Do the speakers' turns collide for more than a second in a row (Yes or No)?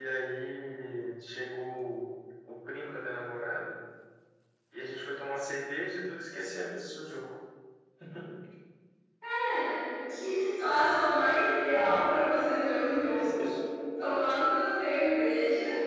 No